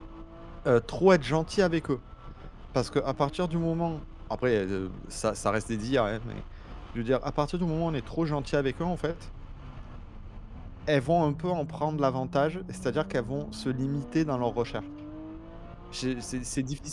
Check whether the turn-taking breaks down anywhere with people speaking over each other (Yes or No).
No